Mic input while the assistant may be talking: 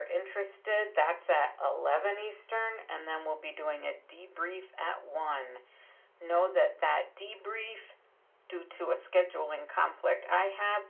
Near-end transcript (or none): none